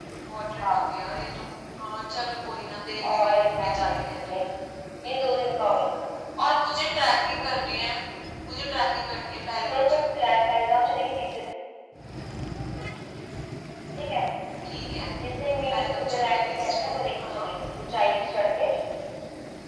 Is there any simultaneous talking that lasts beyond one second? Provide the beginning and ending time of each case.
3.1-4.4, 15.7-17.5

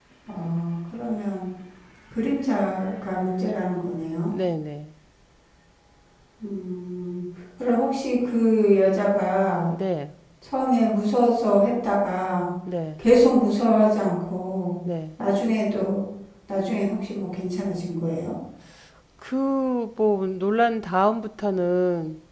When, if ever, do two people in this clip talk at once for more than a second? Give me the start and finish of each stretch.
none

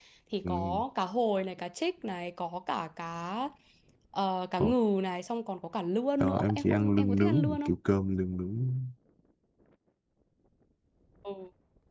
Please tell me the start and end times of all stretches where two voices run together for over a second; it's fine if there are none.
6.2-7.7

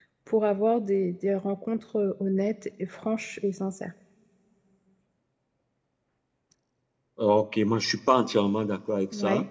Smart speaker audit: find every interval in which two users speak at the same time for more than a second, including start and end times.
none

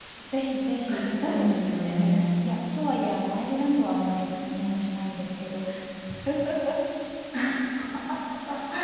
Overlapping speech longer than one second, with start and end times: 0.9-2.5

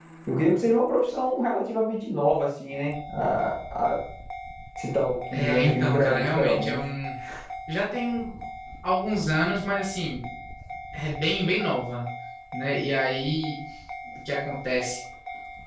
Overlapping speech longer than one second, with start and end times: 5.3-6.8

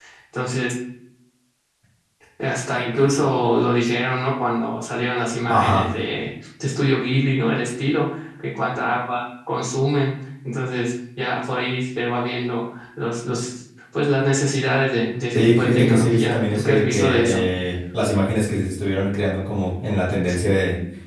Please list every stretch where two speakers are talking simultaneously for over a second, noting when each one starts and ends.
15.3-17.4

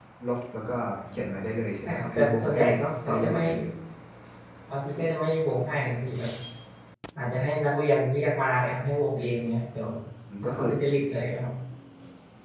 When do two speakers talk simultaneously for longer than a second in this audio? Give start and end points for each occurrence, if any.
1.8-3.4

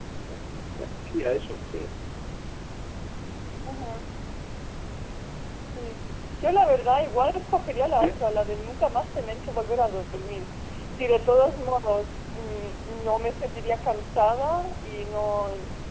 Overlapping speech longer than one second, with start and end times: none

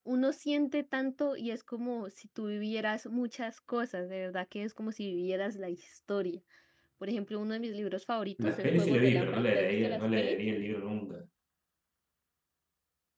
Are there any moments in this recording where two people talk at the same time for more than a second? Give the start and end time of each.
8.4-10.4

